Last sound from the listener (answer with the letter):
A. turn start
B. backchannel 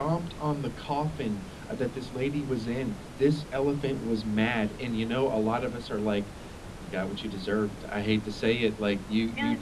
B